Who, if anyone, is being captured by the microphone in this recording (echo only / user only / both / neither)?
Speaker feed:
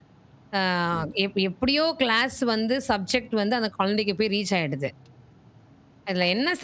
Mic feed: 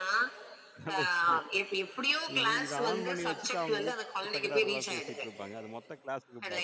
both